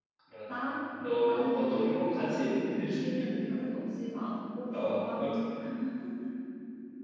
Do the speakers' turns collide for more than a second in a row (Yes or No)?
Yes